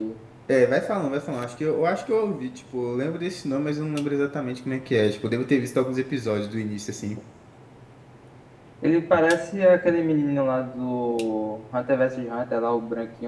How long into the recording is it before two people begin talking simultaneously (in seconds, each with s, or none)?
none